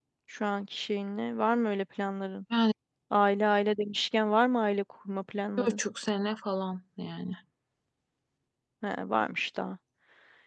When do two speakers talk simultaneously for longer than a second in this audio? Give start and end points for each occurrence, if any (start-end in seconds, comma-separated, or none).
none